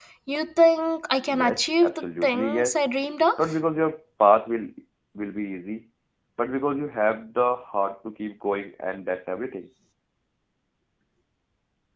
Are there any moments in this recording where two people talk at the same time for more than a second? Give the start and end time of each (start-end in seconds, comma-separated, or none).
1.3-2.8